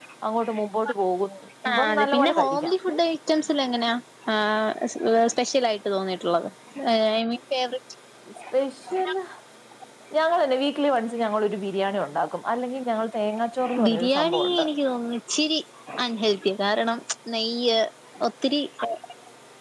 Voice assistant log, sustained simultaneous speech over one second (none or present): present